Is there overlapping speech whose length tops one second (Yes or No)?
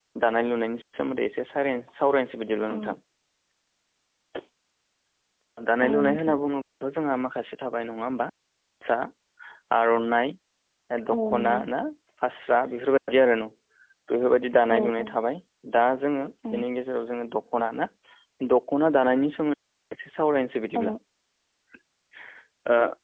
No